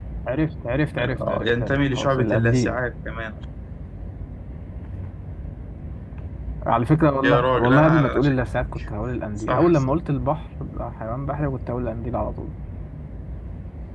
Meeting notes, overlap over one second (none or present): present